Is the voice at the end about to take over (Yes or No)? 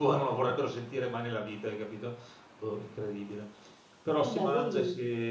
No